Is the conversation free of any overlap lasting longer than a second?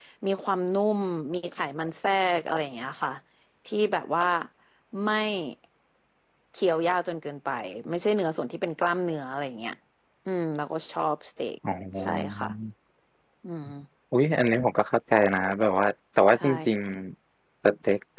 Yes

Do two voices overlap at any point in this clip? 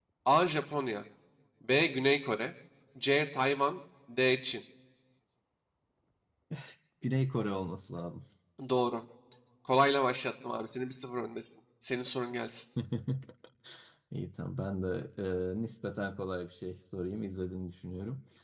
No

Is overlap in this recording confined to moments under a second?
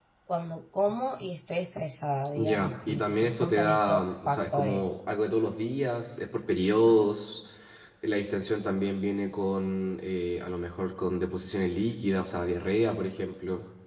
No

